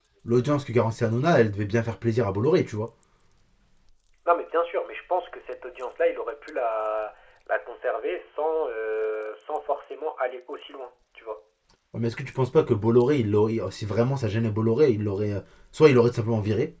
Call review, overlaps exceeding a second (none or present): none